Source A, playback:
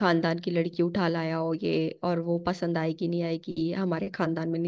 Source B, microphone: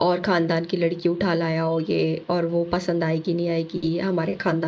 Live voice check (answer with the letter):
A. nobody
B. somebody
A